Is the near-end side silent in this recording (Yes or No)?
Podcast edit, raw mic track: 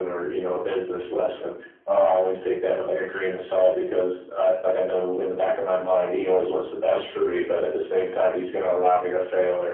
Yes